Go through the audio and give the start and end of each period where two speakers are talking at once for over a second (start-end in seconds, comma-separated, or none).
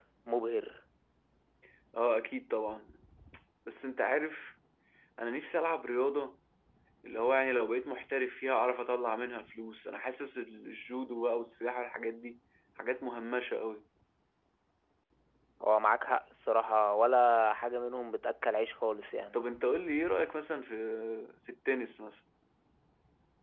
none